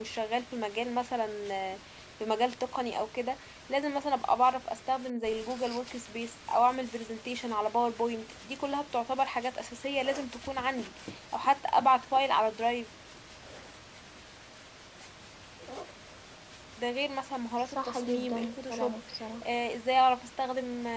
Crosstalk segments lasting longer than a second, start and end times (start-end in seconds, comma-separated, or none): 17.6-19.0